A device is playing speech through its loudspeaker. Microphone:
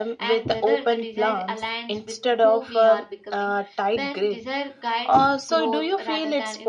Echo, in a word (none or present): present